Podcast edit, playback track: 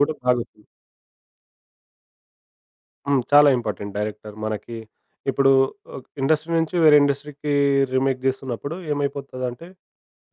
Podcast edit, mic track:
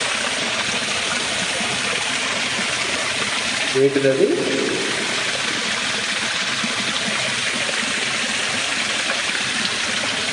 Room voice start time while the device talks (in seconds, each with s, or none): 3.8 s